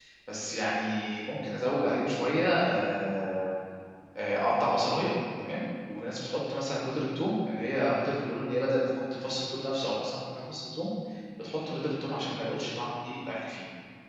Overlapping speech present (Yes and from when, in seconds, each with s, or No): No